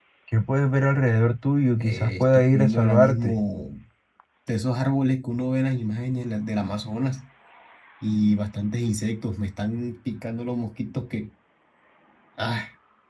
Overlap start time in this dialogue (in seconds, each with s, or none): 1.8 s